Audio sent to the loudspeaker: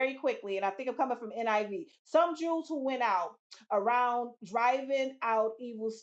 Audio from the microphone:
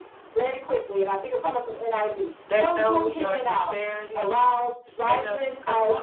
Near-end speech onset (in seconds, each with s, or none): 2.5 s